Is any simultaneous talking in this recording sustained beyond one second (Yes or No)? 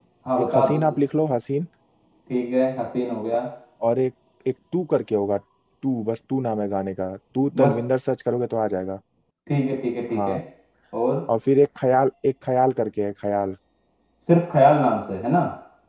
No